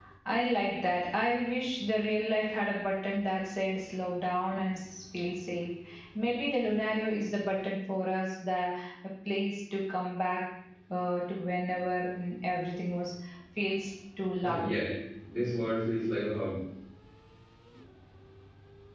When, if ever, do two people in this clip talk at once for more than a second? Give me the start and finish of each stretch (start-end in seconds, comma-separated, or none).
none